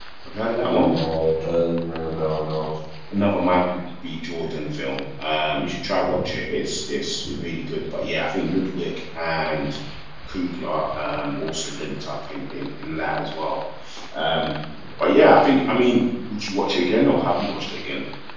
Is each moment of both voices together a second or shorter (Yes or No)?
Yes